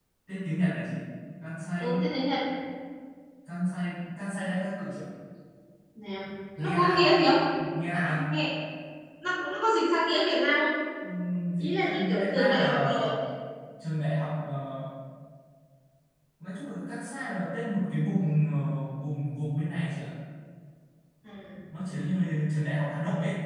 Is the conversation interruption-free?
No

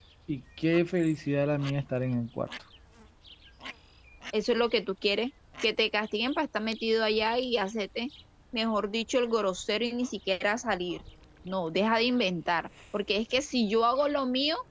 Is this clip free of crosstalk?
Yes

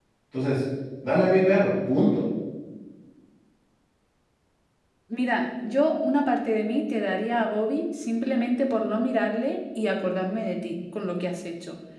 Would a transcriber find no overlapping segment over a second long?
Yes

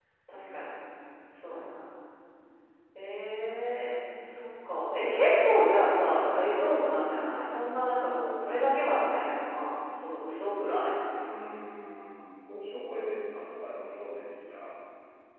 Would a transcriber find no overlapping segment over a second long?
Yes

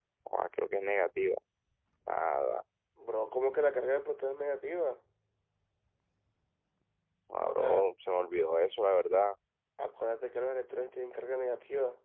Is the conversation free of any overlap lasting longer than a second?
Yes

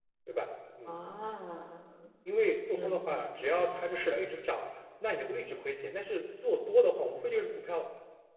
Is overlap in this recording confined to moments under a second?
No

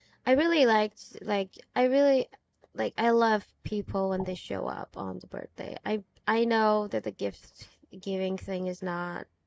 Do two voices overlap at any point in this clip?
No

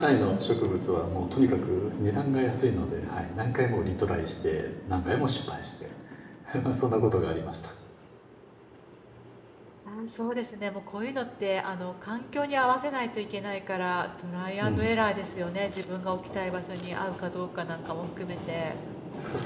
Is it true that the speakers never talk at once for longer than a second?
Yes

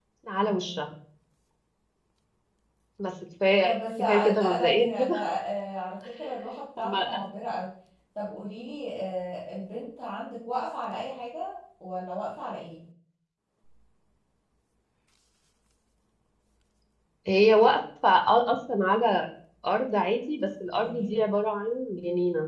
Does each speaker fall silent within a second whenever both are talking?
No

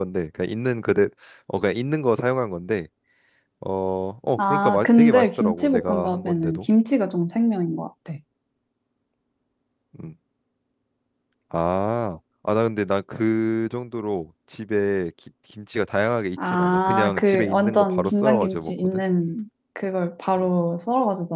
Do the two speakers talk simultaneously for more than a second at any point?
Yes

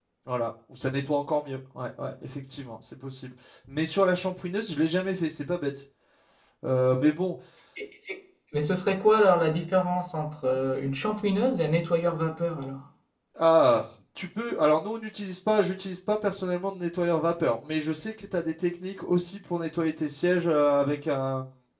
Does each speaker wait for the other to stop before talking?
Yes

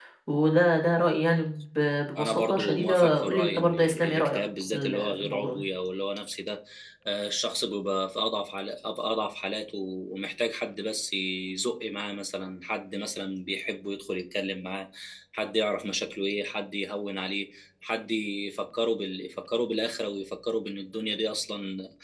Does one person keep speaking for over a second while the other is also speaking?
Yes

